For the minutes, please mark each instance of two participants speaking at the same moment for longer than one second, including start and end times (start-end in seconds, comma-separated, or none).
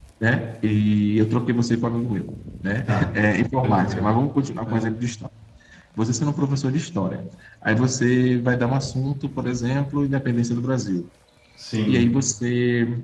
none